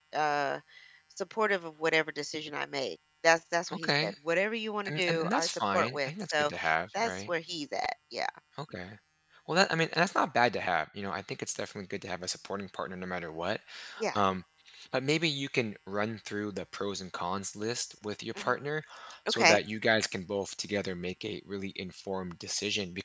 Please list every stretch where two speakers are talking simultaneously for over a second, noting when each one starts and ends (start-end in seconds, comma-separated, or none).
4.8-6.5